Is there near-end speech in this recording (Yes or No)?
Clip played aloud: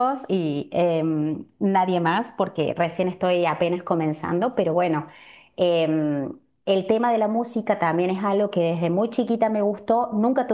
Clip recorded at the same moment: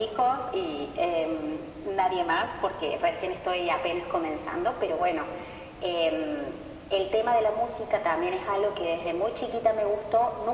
No